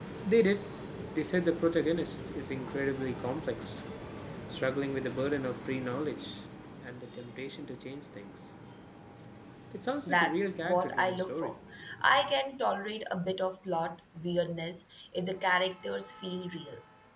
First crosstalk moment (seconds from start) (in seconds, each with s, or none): 10.0 s